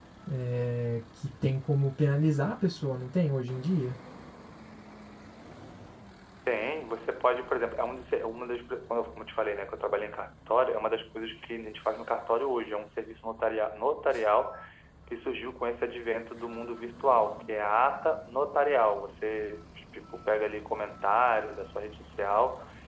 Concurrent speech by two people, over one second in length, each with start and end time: none

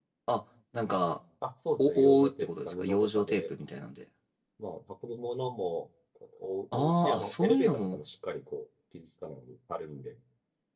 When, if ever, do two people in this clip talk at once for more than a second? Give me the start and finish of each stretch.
1.8-3.4, 6.8-8.0

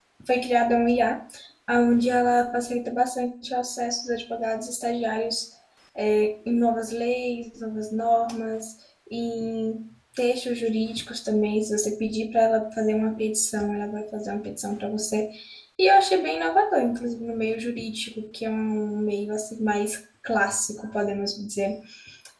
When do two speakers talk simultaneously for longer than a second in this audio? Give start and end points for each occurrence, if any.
none

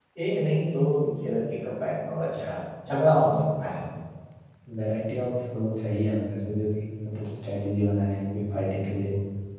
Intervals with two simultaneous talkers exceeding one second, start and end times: none

